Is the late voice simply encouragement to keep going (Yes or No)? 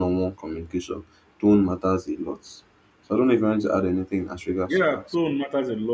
No